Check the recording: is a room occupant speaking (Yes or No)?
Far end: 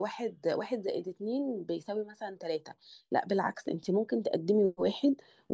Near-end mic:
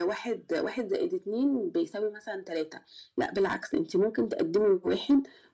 No